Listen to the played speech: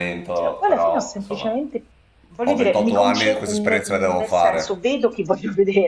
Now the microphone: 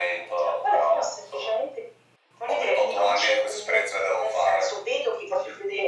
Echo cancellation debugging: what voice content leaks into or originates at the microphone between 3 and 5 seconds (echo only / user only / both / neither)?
echo only